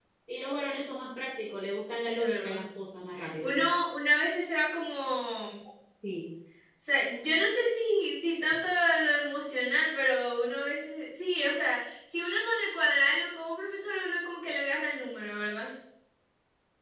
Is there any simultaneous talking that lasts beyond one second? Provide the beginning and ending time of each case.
none

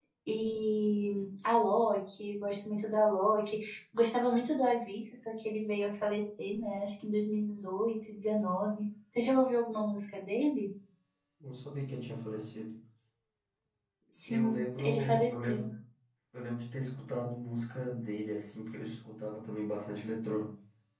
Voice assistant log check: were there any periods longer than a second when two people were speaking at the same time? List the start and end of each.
14.3-15.7

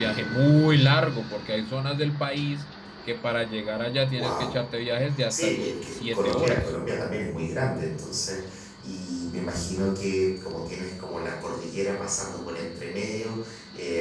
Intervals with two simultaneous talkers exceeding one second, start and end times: 5.3-6.7

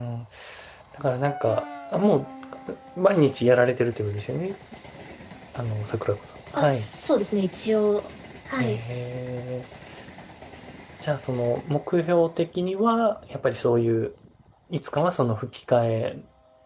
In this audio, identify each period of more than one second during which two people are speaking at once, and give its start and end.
none

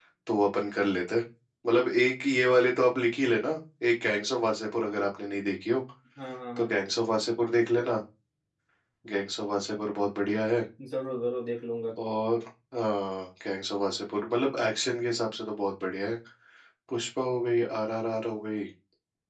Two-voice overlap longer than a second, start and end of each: none

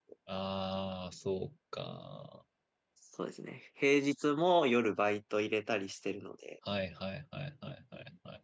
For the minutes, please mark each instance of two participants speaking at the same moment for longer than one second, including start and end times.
none

